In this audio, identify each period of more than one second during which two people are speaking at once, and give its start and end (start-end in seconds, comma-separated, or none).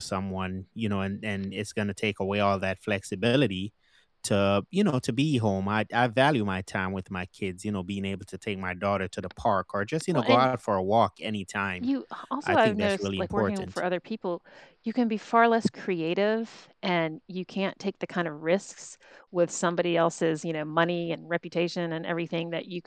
12.4-13.8